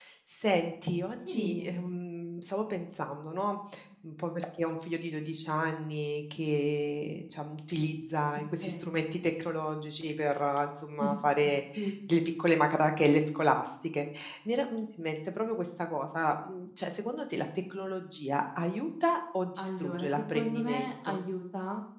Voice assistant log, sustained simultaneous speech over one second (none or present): present